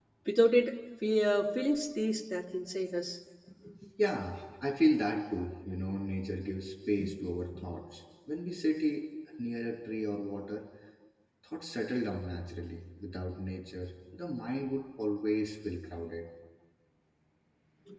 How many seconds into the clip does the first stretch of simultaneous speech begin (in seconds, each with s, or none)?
none